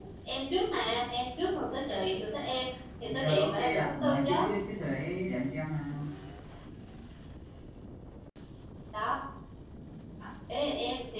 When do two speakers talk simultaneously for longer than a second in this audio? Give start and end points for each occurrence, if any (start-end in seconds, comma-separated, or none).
3.2-4.5